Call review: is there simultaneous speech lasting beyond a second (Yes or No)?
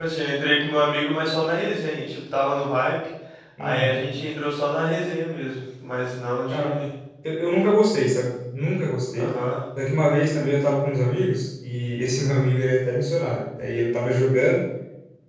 No